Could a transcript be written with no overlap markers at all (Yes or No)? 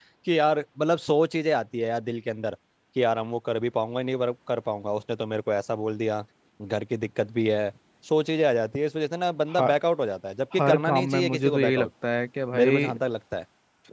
No